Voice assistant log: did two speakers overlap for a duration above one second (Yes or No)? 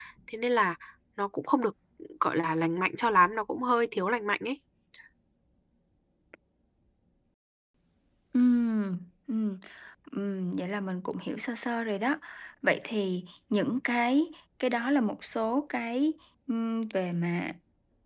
No